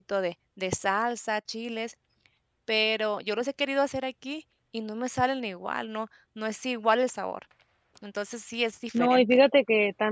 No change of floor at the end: No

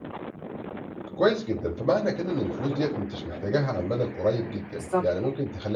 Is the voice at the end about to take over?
No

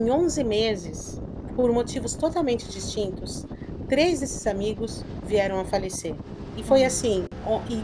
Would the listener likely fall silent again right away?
Yes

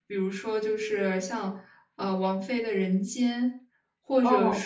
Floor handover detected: No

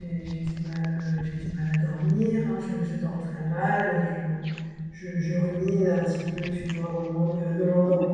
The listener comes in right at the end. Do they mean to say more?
No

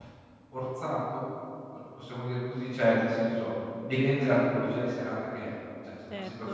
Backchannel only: No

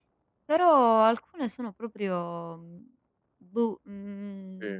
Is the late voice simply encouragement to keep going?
Yes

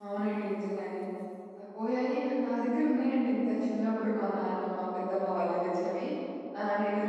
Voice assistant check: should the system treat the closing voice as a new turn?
No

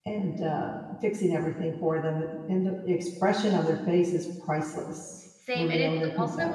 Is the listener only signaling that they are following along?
No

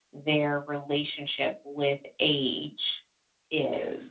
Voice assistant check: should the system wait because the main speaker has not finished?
No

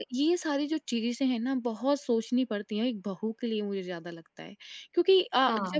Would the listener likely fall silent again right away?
Yes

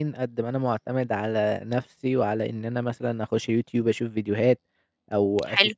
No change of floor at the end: Yes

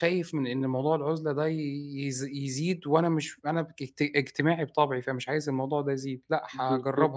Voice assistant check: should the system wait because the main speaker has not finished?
No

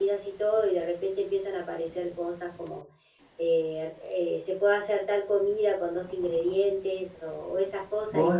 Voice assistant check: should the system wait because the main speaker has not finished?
Yes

